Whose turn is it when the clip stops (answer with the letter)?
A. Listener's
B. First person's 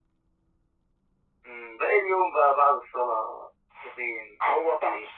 A